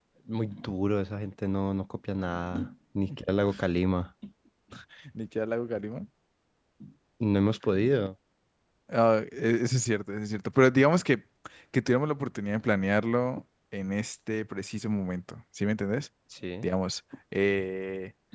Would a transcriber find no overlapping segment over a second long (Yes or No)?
Yes